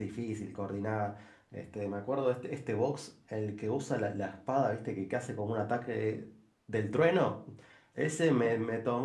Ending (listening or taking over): listening